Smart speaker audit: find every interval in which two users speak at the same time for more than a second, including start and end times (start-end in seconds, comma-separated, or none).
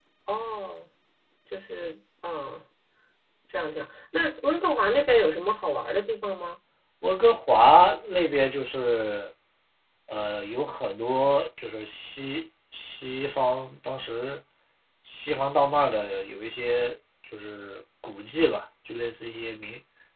none